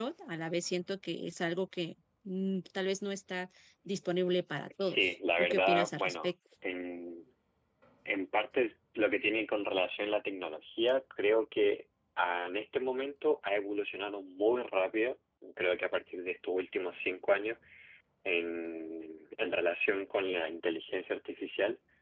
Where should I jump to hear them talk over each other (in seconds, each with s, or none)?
4.8 s